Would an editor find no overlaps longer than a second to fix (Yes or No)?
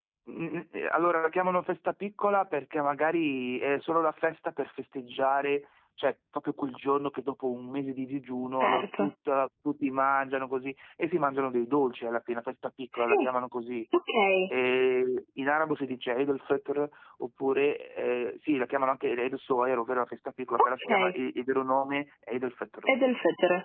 Yes